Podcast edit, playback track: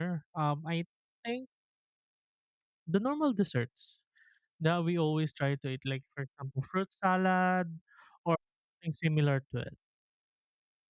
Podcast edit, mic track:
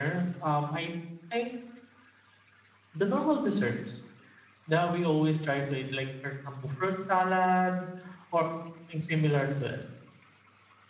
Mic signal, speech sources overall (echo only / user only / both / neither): echo only